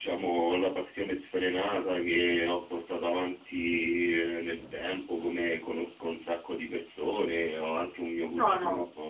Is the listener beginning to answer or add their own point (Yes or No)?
No